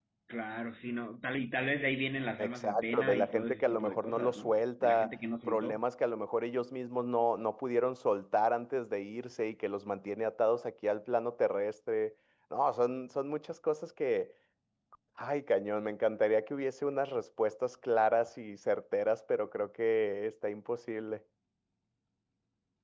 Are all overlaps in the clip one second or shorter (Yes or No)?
No